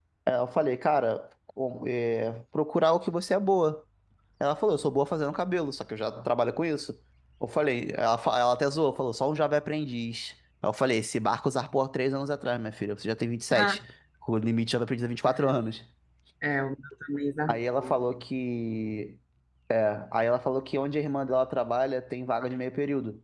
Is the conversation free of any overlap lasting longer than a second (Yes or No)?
Yes